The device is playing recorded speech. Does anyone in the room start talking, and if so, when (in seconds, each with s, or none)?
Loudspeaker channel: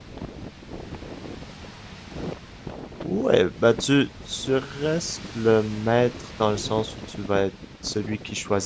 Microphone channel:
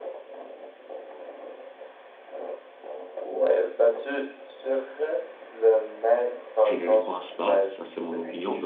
6.6 s